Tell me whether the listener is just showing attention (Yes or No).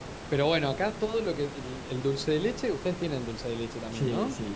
No